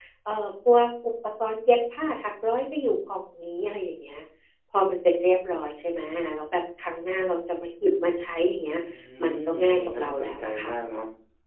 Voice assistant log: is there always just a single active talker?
No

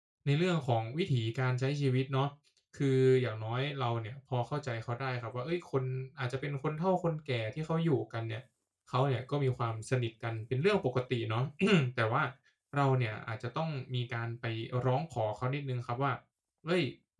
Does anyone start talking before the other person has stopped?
No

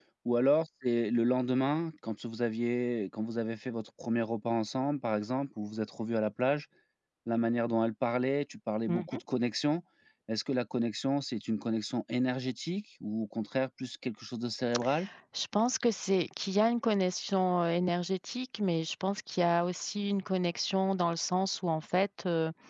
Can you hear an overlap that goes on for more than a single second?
No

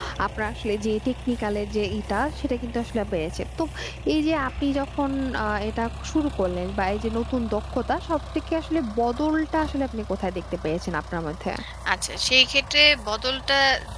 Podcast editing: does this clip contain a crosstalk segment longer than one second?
No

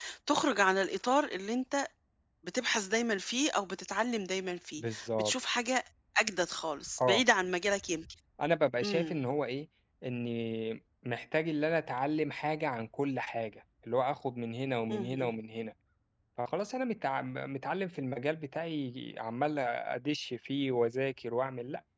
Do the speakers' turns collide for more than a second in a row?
No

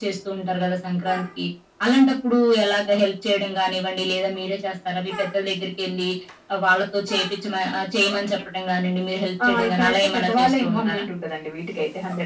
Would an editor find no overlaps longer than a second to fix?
No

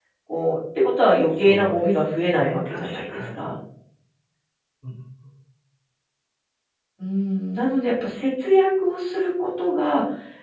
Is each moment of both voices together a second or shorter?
No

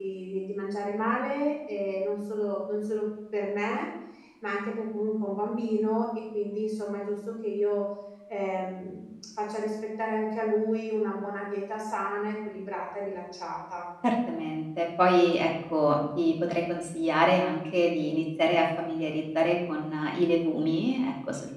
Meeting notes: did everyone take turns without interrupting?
Yes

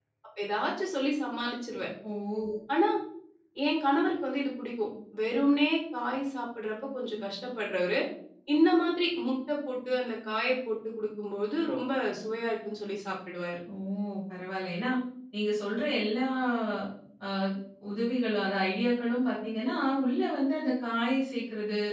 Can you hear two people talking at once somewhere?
No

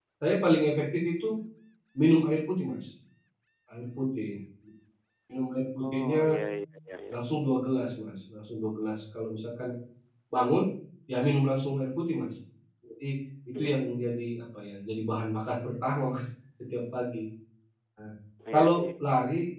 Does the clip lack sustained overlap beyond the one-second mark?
Yes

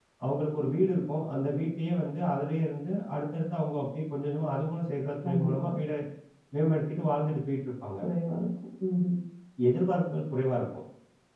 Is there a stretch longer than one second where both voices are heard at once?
No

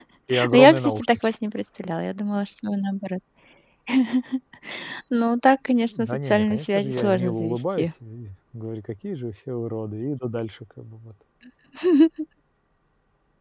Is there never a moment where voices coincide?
No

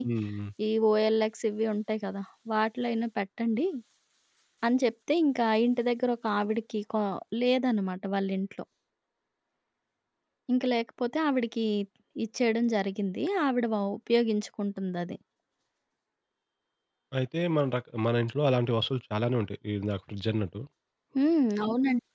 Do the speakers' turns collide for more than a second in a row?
No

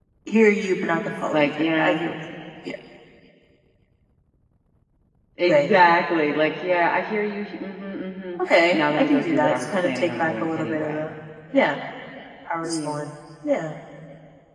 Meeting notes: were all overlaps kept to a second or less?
No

